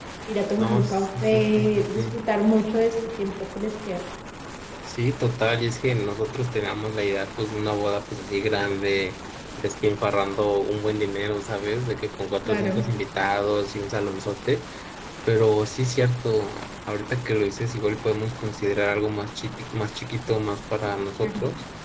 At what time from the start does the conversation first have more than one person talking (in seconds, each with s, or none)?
0.6 s